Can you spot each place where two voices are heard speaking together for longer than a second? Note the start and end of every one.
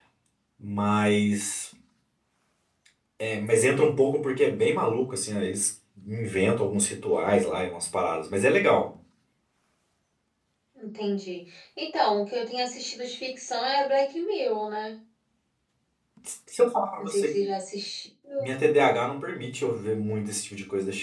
none

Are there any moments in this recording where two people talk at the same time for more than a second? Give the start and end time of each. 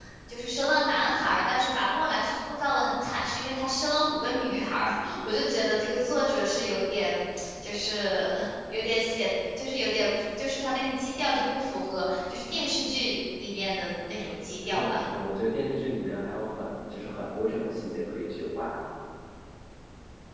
none

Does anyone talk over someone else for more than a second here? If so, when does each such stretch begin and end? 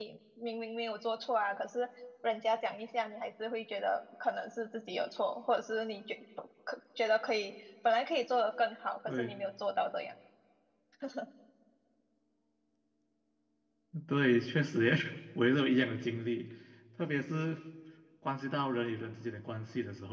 none

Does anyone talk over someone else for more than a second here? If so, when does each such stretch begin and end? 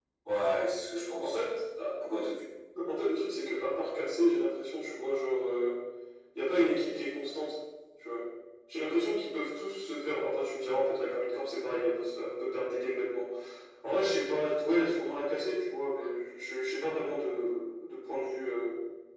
none

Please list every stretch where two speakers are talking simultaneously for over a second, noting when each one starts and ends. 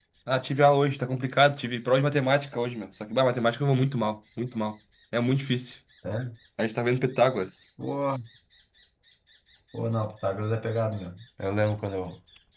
none

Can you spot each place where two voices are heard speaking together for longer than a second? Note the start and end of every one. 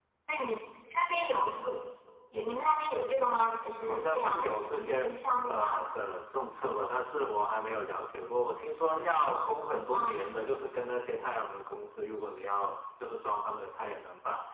3.8-5.1

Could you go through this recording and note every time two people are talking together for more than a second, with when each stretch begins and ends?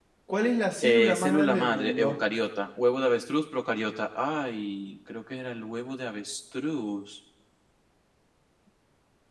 0.8-2.1

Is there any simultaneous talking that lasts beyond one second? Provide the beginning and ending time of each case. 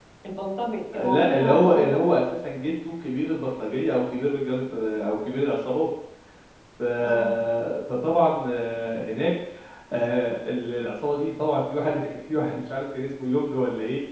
0.9-2.3

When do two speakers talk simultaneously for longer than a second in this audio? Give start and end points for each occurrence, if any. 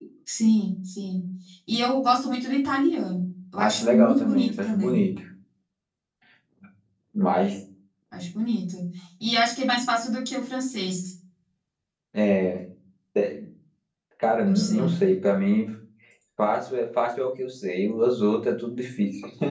3.6-5.0

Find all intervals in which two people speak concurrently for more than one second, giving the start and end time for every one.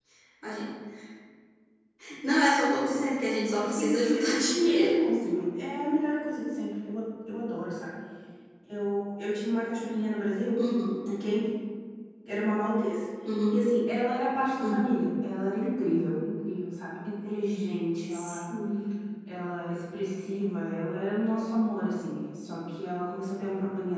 3.6-4.9

